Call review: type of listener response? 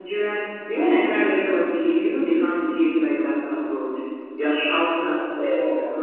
listening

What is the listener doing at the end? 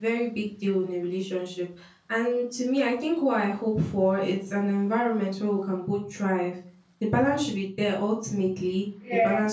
listening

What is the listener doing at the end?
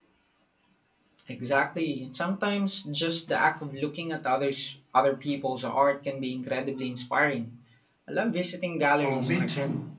taking over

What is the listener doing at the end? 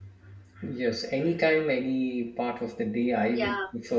listening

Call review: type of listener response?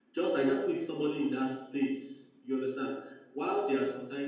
listening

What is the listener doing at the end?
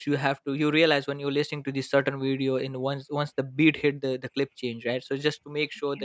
listening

